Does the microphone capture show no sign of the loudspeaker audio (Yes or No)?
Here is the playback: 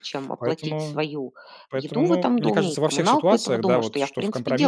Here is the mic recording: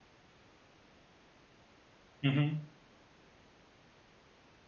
Yes